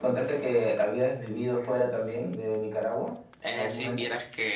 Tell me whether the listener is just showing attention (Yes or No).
No